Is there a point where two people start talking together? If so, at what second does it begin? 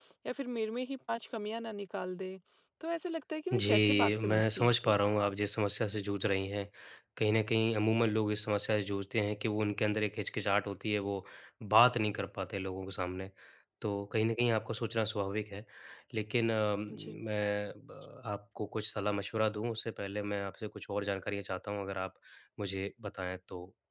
4 s

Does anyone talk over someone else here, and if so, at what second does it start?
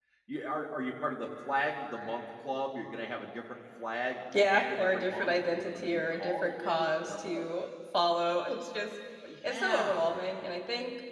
4 s

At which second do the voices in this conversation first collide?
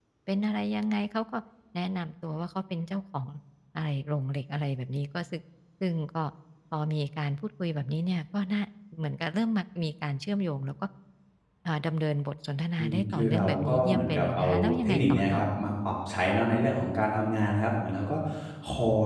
13 s

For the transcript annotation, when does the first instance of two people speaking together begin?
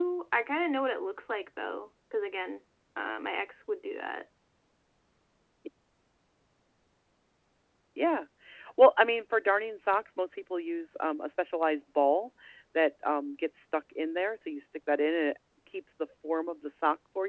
none

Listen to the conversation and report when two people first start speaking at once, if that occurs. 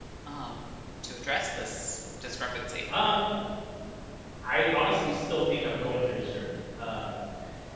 none

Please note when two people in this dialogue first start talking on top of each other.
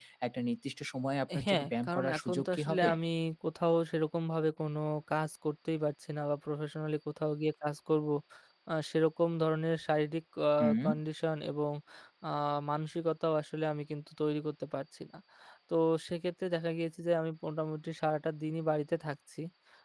1 s

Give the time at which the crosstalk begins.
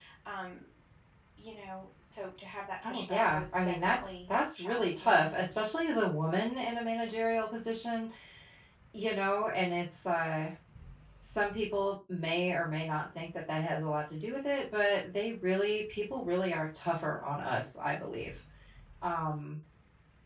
3 s

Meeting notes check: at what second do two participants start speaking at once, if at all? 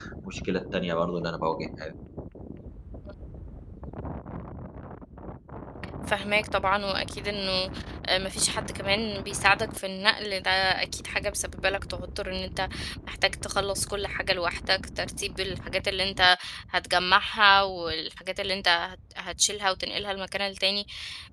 none

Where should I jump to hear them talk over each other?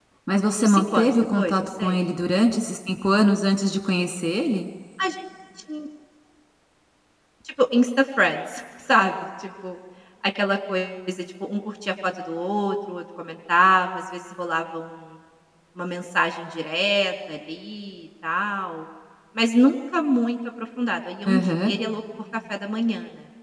1 s

